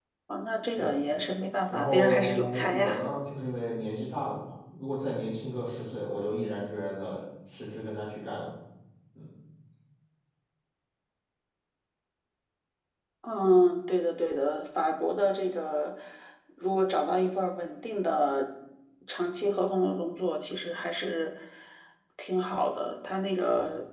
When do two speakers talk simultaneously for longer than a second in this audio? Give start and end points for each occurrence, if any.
1.7-2.9

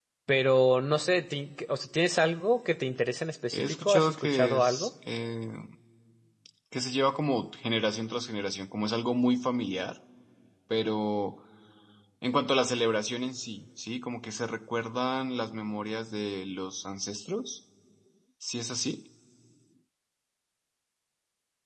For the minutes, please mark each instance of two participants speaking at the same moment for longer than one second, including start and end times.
3.5-4.9

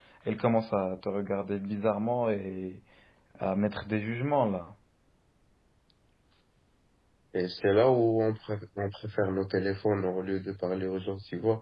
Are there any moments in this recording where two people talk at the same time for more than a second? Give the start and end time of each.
none

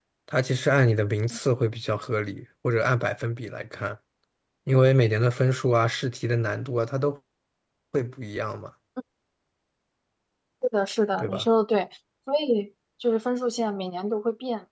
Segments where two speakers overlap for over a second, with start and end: none

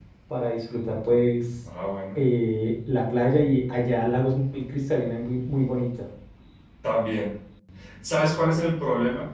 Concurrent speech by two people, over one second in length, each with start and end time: none

